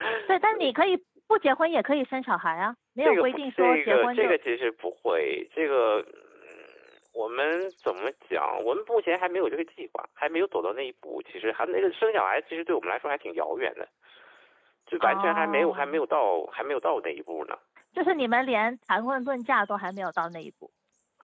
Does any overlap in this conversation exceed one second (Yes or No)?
Yes